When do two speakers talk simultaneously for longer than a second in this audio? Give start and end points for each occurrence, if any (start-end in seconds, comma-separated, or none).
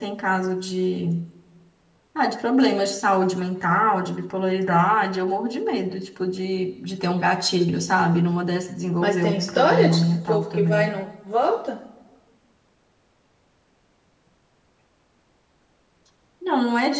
9.0-11.0